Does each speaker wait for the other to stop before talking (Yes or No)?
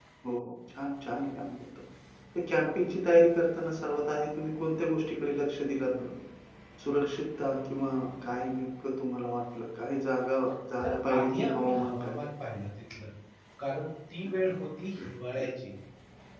No